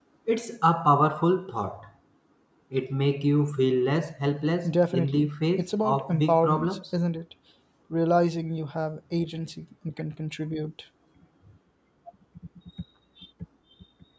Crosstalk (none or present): present